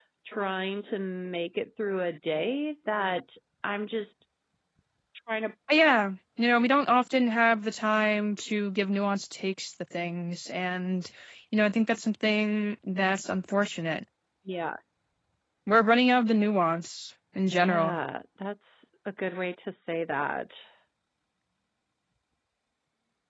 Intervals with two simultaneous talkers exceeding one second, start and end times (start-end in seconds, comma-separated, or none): none